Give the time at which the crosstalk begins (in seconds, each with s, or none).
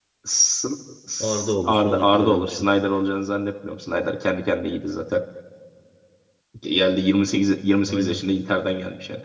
1.2 s